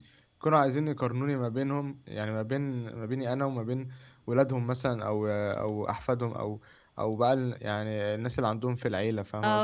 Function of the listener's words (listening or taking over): taking over